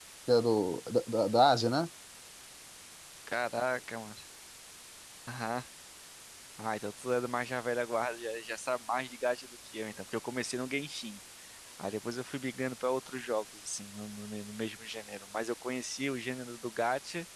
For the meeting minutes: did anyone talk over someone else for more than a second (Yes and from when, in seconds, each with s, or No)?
No